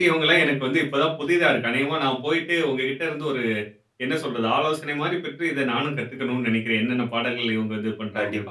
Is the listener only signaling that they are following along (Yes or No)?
No